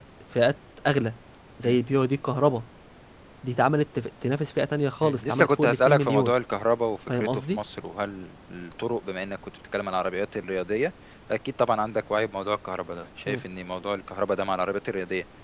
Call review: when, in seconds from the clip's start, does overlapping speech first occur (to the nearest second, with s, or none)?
5 s